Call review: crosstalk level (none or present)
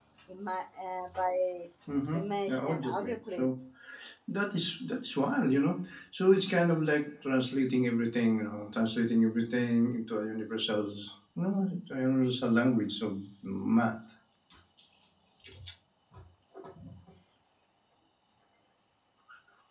present